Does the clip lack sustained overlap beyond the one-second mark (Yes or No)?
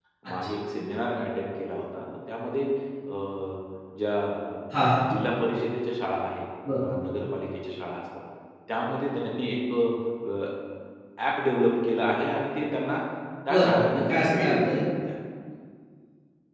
No